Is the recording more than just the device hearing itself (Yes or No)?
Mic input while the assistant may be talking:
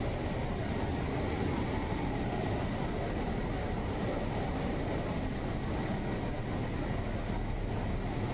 No